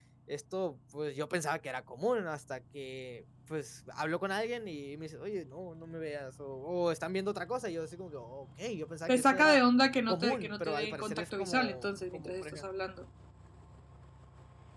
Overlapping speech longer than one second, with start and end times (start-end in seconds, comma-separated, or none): 10.1-12.6